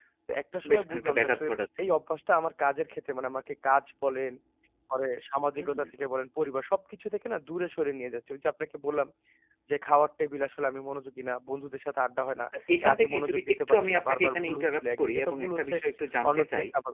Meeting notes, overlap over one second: present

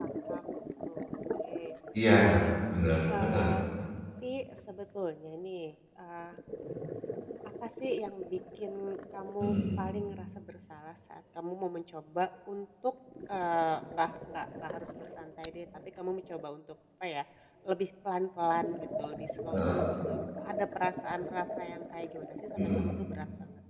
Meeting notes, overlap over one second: none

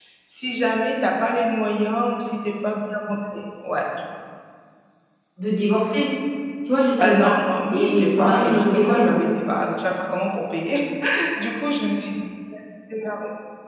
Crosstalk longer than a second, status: present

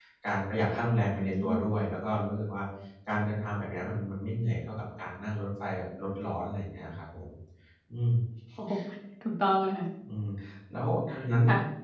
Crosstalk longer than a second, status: none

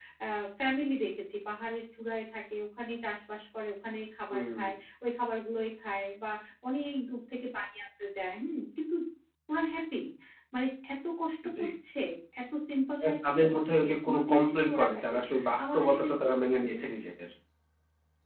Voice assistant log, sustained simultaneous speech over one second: present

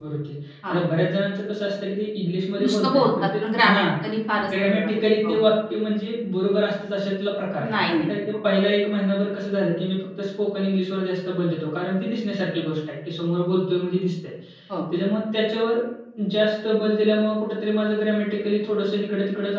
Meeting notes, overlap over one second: present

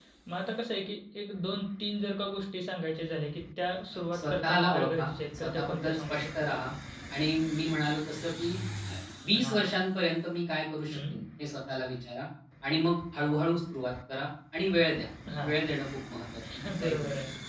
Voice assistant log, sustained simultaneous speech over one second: present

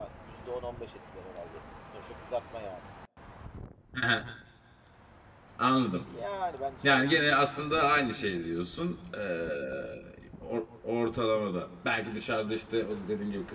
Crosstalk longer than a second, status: none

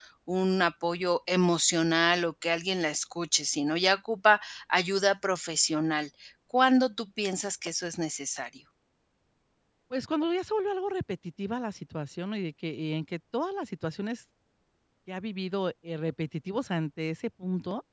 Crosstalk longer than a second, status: none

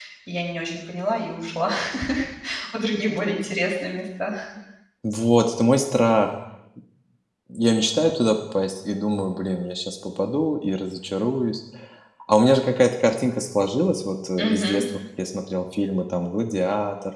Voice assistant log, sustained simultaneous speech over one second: none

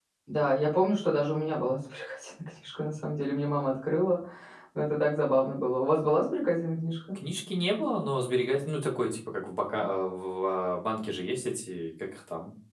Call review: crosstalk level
none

